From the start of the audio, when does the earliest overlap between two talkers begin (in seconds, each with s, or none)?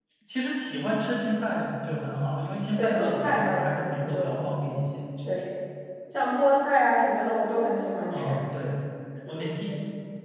2.8 s